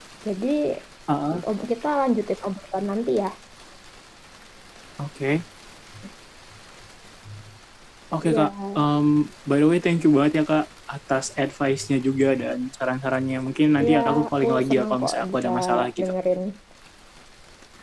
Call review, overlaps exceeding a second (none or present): present